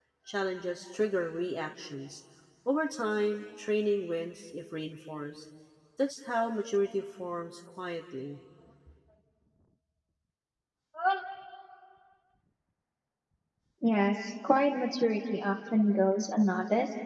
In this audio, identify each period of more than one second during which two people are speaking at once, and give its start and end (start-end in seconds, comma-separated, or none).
none